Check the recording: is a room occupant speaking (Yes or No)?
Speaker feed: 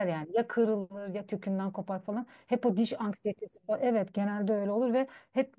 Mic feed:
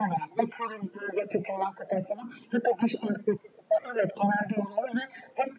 No